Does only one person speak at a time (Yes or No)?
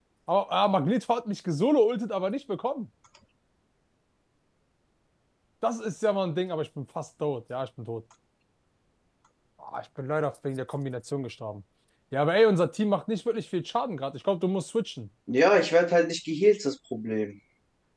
Yes